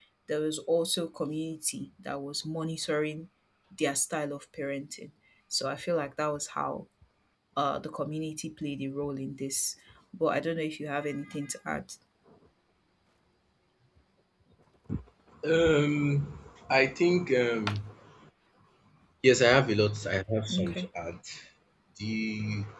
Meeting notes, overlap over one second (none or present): none